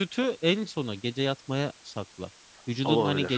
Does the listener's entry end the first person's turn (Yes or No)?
No